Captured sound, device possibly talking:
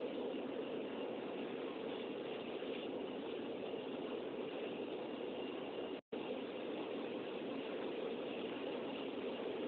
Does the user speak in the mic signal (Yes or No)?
No